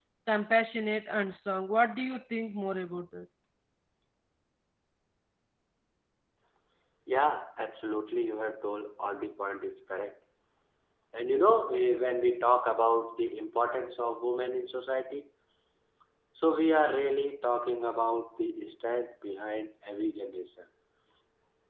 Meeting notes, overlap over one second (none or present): none